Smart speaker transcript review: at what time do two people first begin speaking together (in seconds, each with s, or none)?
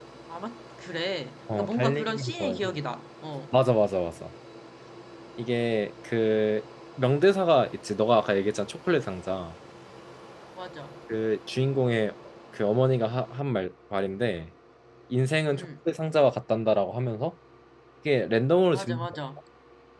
1.5 s